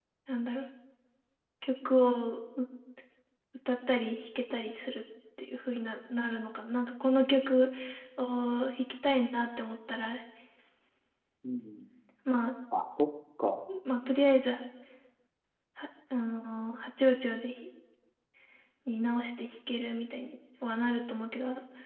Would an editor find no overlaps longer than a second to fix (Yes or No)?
Yes